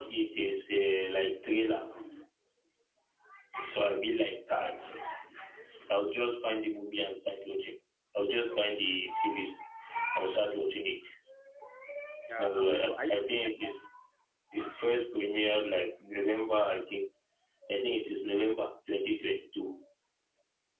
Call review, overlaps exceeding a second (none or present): present